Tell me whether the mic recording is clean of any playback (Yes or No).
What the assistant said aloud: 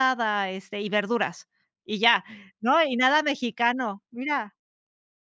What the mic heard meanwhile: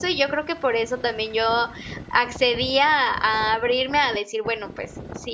Yes